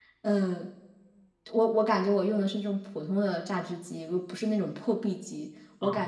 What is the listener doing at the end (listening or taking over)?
listening